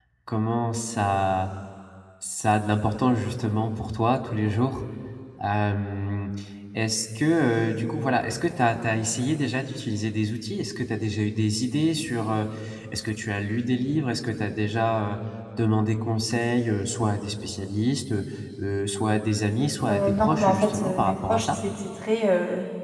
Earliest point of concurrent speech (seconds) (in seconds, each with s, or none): 19.9 s